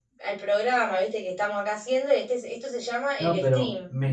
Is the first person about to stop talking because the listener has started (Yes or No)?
Yes